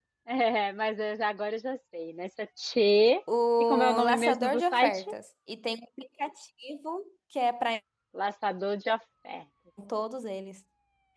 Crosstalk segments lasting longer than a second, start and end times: 3.6-5.0

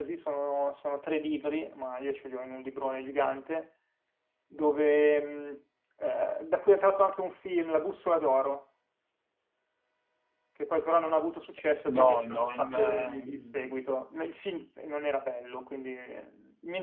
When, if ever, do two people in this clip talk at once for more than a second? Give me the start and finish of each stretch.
11.9-13.8

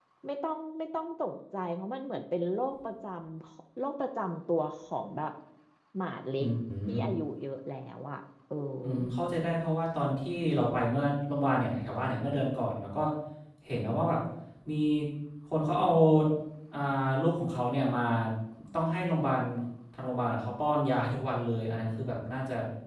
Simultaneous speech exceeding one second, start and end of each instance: none

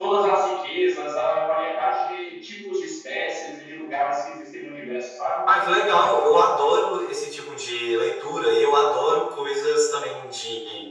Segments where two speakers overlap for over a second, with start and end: none

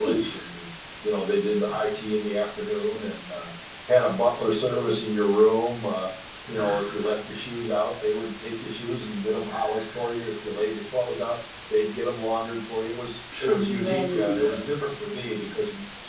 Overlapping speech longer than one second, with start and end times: 13.4-14.9

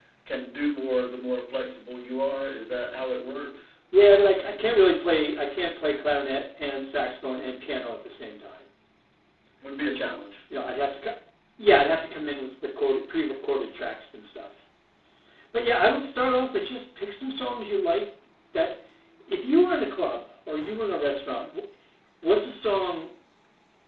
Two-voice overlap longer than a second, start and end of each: none

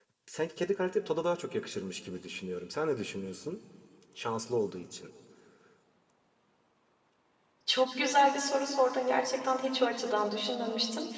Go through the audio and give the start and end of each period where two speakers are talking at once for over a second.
none

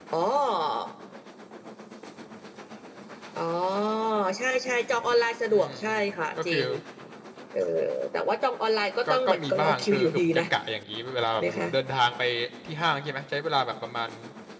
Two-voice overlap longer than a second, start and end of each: 9.1-10.4

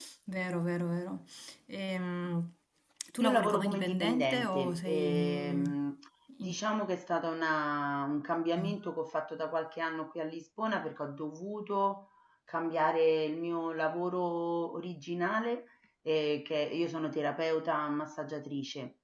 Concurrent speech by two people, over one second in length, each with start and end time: 3.2-5.7

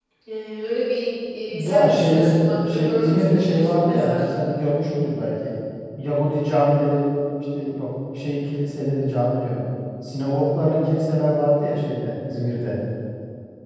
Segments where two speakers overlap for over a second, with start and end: 1.4-4.2

